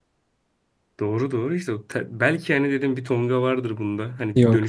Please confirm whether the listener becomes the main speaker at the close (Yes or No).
No